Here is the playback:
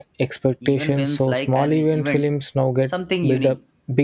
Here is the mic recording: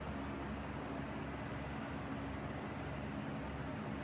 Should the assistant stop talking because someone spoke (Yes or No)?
No